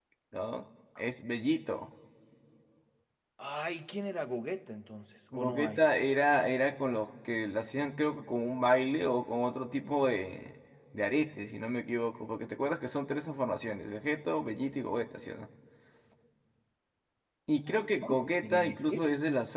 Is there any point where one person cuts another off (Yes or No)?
Yes